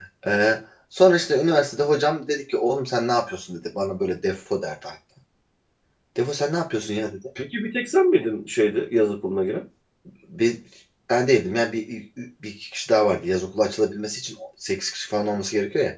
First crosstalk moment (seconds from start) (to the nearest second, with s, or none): none